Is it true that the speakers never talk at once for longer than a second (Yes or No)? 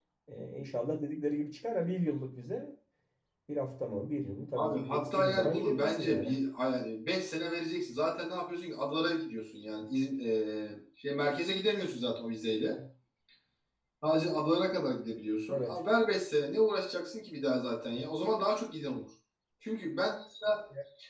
No